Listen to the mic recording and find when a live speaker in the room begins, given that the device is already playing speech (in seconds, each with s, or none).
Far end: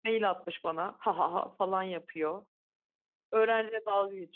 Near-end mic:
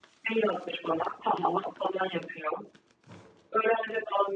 none